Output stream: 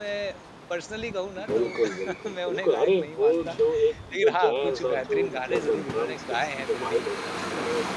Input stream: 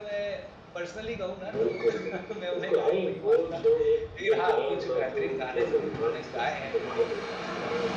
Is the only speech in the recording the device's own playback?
Yes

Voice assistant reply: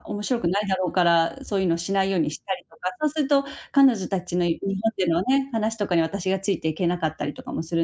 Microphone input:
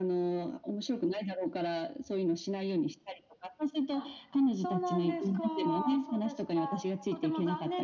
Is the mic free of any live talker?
No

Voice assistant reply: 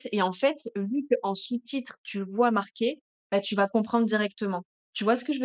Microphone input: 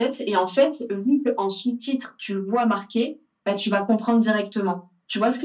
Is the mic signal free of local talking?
Yes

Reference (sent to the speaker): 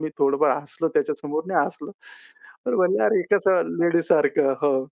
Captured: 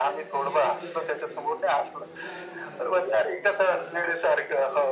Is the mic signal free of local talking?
No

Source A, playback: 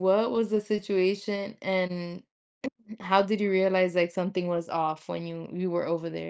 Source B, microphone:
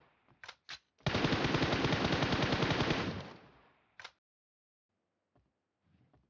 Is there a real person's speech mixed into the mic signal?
No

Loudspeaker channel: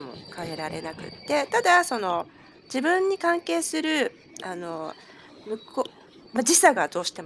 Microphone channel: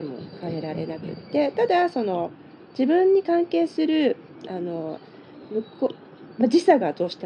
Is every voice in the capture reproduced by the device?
Yes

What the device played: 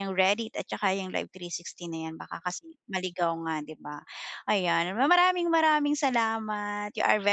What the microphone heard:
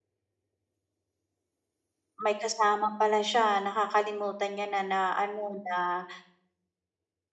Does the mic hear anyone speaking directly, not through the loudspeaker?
Yes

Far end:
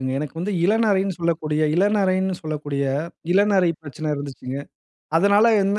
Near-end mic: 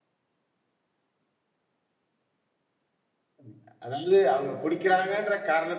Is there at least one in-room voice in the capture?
Yes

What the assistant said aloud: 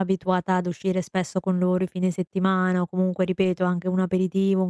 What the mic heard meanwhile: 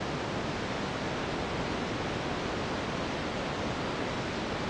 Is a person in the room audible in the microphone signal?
No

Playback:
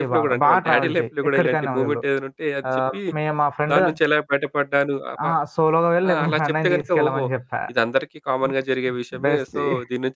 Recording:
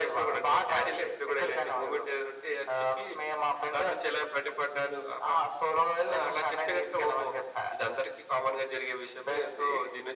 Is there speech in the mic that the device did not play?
No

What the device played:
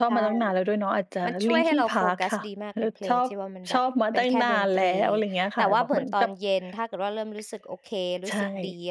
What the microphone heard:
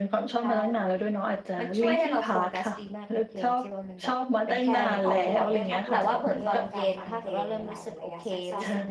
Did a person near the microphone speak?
Yes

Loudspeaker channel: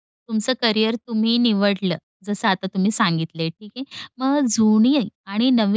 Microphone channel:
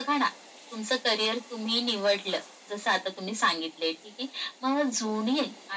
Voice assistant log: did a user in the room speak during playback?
No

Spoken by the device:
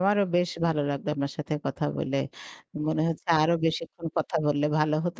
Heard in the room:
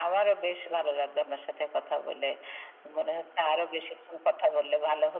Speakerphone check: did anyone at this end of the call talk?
No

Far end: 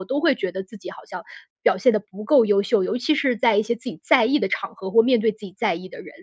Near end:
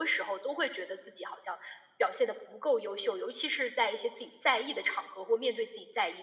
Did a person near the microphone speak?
No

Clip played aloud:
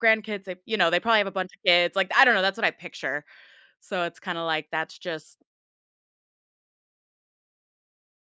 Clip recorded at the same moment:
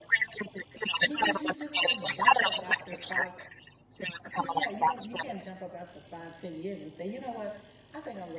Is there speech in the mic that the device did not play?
Yes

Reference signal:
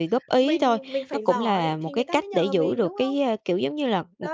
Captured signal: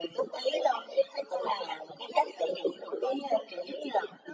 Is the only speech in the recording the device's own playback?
Yes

